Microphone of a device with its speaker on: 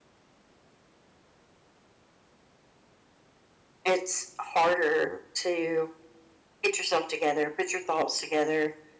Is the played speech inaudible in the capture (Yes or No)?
Yes